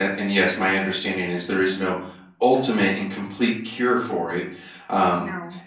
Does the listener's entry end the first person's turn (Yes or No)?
No